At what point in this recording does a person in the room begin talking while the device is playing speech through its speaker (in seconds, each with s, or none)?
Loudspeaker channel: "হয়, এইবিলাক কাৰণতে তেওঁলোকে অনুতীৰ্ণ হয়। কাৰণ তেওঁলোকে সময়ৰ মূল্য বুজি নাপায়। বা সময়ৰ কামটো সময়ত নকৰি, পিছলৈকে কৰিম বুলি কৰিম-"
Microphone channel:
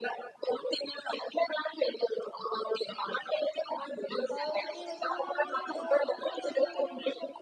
4.3 s